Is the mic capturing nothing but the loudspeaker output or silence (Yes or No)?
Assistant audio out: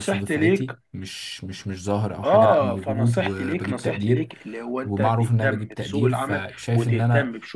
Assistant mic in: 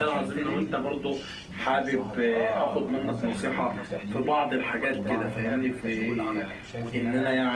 No